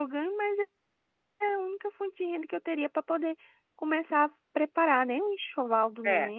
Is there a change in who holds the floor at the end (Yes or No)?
Yes